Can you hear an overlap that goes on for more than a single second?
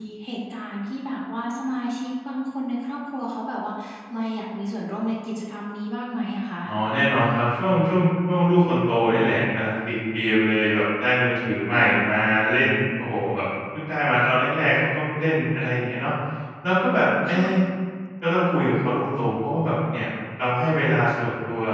No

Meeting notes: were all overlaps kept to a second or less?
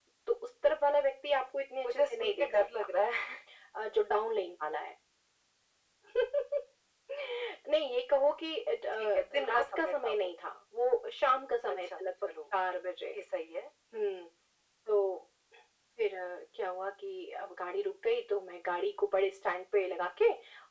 No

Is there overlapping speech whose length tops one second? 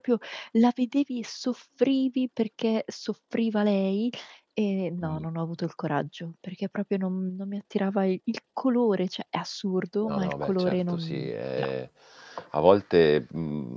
Yes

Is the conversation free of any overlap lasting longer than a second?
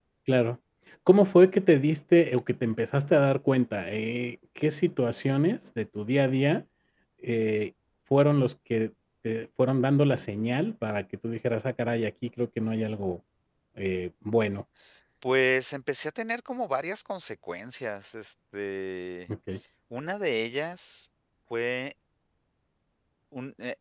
Yes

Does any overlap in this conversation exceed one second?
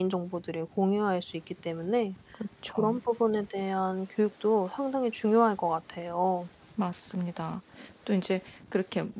No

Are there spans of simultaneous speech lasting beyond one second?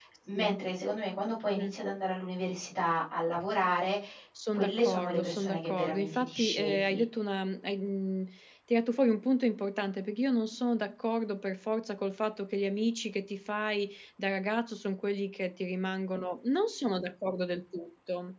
Yes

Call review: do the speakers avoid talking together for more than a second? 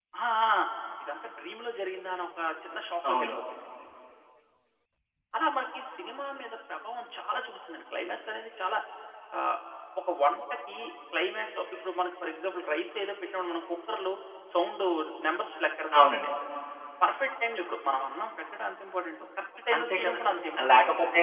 Yes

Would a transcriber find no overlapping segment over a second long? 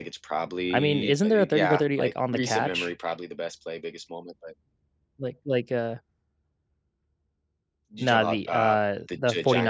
No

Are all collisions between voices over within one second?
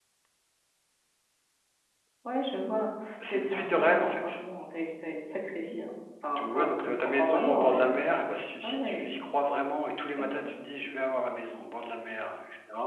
No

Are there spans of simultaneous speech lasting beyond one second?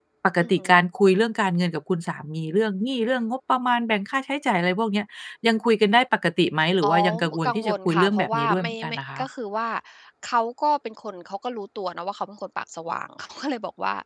Yes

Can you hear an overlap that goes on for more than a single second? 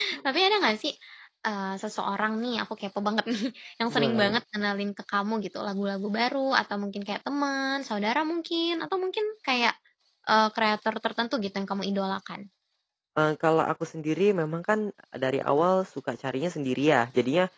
No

